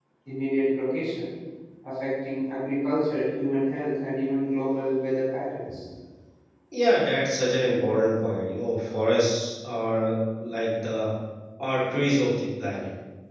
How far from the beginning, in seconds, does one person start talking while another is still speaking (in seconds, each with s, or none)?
none